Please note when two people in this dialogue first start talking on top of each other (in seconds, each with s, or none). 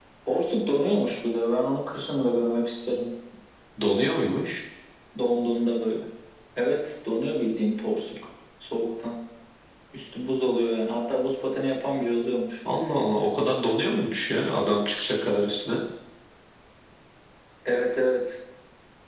none